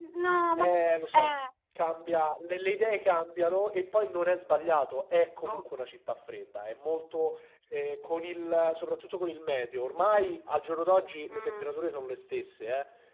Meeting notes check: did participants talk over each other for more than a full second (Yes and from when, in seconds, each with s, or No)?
No